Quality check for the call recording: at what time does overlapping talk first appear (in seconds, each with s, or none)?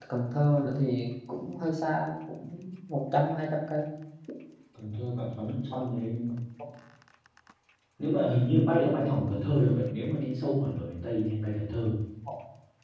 none